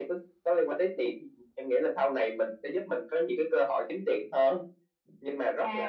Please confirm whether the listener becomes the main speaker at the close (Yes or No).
Yes